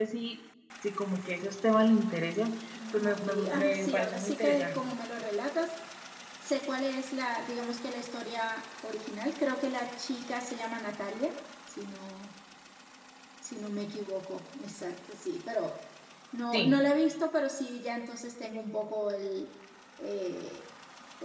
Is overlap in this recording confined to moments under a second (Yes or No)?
No